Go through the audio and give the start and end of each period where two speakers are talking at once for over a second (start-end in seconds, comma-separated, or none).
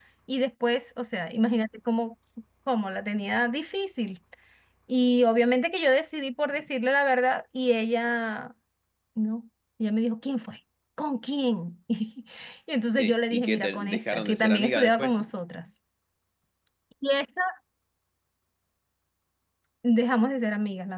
13.0-15.2